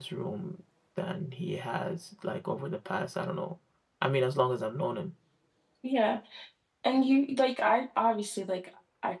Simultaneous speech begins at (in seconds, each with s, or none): none